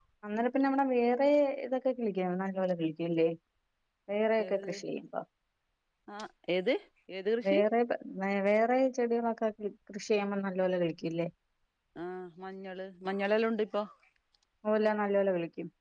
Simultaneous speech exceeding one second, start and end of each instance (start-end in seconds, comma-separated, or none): none